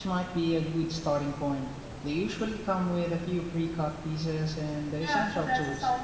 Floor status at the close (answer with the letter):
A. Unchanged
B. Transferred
B